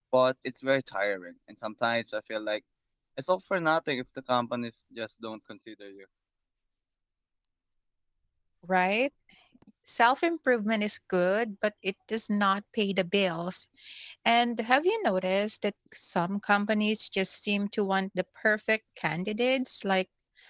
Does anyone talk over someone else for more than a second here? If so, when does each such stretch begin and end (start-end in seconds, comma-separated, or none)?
none